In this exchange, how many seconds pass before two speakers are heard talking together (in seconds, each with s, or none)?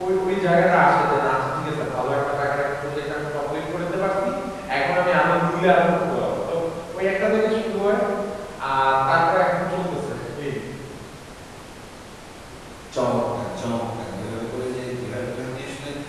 none